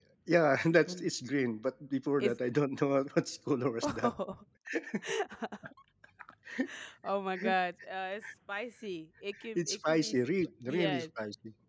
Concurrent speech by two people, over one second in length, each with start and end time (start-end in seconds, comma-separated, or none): 9.6-11.1